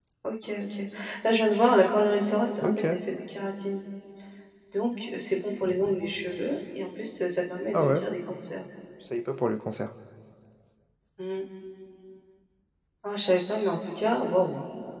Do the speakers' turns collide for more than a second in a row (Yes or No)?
No